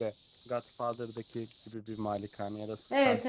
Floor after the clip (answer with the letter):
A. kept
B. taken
B